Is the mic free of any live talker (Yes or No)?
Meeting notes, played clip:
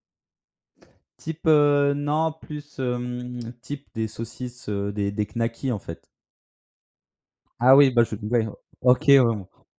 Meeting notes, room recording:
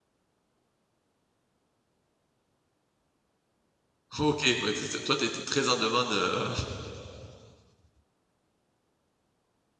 No